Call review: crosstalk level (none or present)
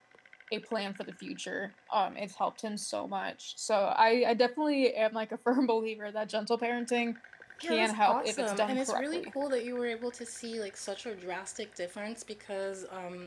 present